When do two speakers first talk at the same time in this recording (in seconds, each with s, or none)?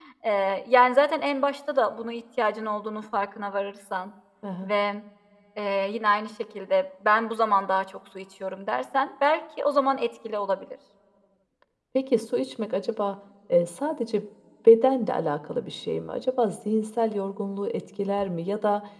none